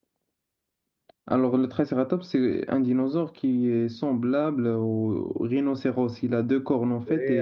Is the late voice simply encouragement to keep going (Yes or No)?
No